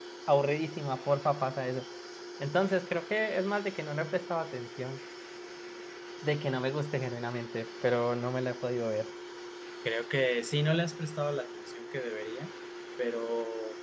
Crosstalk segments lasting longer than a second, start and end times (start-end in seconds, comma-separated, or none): none